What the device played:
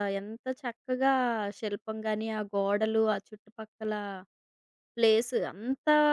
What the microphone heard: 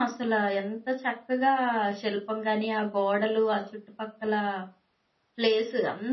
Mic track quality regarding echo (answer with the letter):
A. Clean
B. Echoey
B